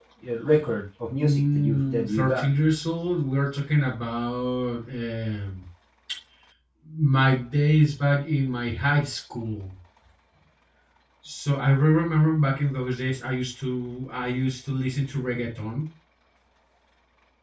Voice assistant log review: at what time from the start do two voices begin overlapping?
1.2 s

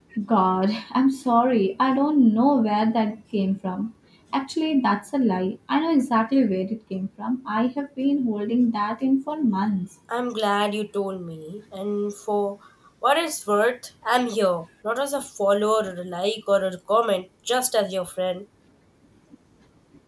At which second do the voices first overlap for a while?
none

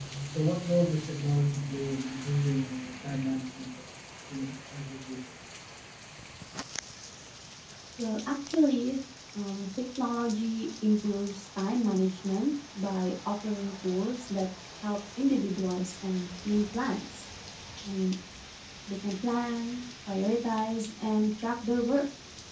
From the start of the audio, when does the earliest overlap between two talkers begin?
none

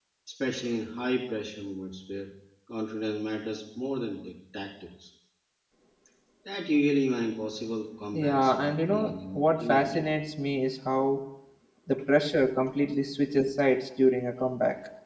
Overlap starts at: 8.1 s

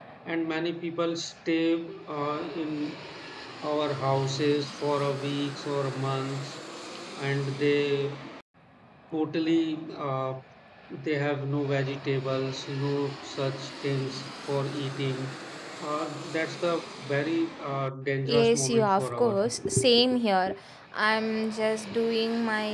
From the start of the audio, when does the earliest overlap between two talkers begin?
18.2 s

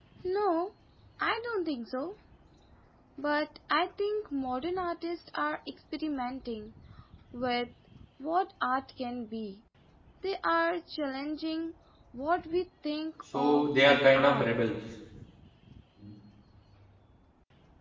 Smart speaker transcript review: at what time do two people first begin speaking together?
13.3 s

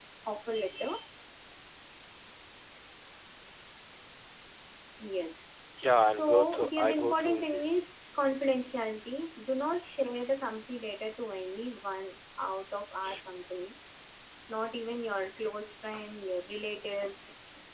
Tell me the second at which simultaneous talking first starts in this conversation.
6.0 s

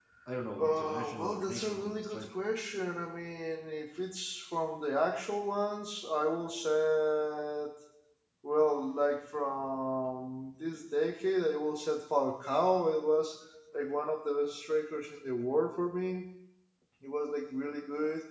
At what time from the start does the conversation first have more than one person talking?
0.6 s

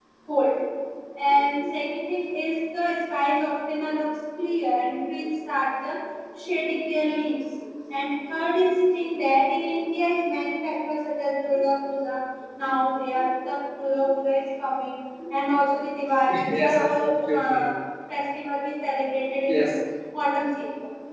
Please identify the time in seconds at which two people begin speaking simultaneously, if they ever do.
16.3 s

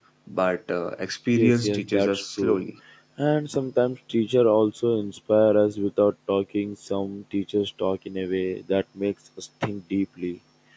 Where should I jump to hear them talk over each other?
1.3 s

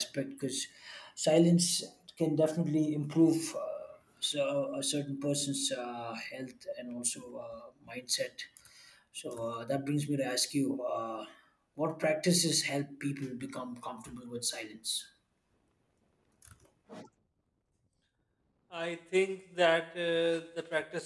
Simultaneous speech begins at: none

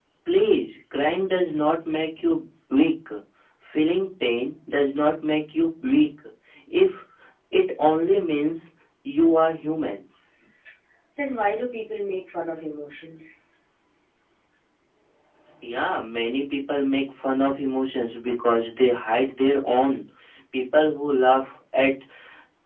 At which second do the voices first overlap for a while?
none

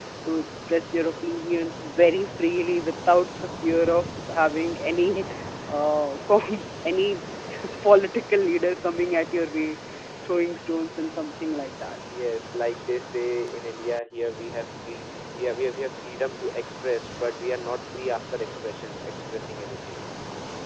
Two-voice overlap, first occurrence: none

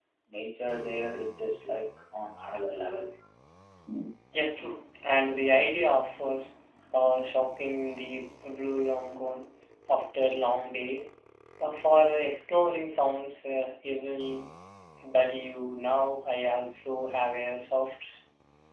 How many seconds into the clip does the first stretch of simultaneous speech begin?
none

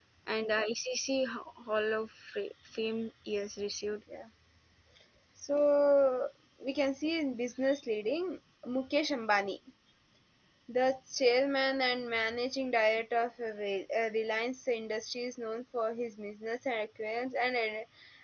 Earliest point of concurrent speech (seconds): none

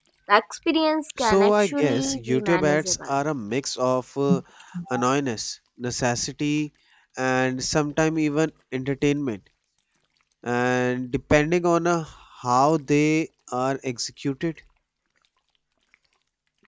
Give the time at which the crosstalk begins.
1.2 s

